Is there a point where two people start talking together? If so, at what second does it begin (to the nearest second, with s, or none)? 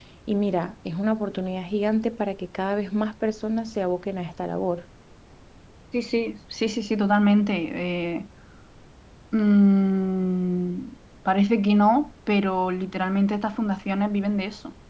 none